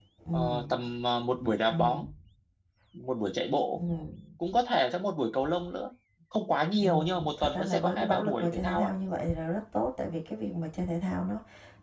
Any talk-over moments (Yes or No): Yes